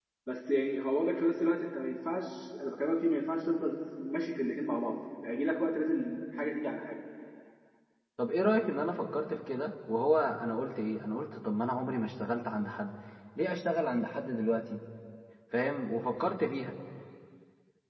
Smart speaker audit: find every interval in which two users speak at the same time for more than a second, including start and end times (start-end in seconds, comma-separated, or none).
none